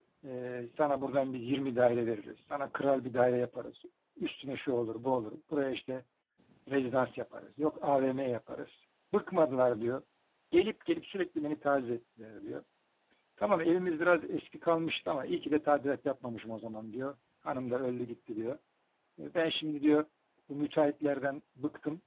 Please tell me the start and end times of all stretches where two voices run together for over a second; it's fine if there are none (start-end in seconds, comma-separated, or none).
none